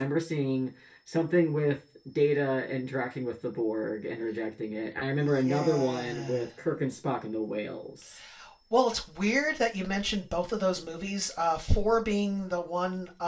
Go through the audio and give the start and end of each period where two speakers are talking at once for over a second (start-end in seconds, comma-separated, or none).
5.2-6.5